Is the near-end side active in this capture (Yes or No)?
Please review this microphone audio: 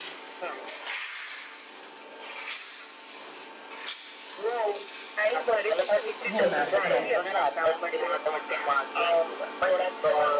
Yes